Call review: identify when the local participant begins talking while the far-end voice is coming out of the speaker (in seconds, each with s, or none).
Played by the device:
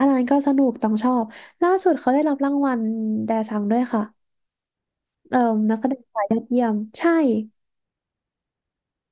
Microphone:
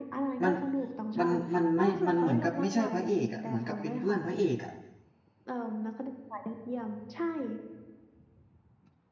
0.4 s